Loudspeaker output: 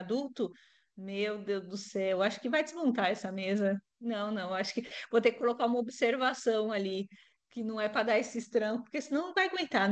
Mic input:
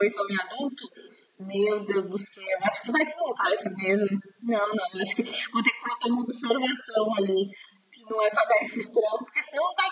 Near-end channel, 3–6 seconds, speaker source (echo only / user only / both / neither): echo only